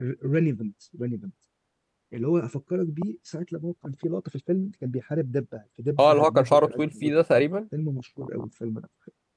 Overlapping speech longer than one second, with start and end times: 6.0-7.4

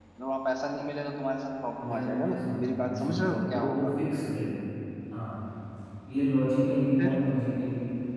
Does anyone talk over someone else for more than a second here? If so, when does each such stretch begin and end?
1.8-3.9

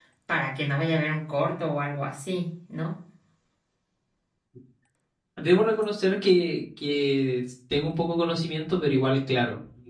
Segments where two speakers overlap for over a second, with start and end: none

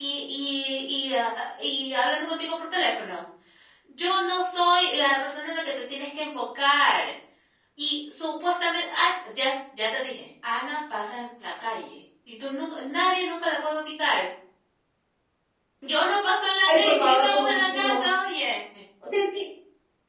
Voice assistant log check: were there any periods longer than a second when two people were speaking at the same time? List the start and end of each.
16.7-18.1

